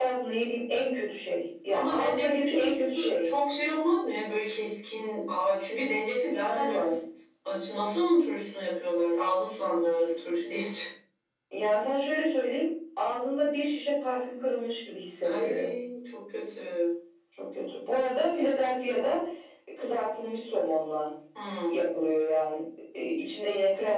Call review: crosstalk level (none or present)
present